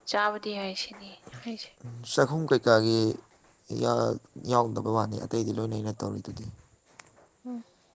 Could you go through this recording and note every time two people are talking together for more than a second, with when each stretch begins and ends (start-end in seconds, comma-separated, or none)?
none